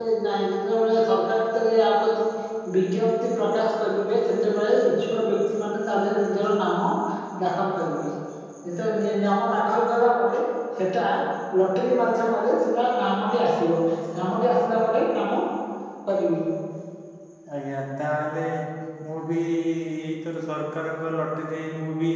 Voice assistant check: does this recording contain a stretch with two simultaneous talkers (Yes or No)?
No